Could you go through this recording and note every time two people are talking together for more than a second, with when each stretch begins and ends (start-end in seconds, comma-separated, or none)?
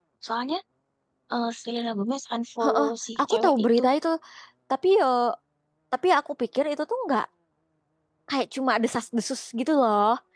2.6-3.9